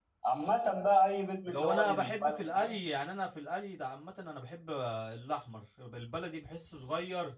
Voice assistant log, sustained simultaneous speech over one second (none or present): present